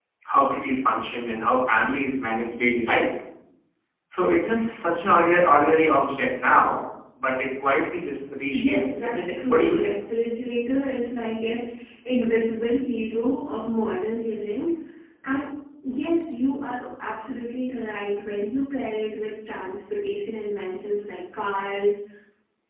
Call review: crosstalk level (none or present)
present